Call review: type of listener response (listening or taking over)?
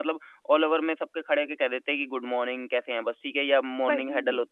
listening